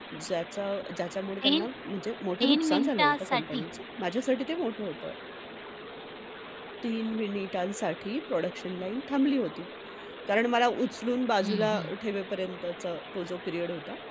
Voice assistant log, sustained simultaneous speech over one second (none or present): present